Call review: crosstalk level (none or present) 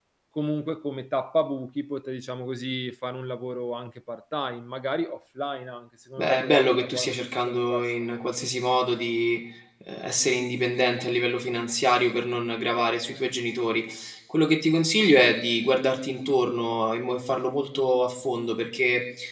present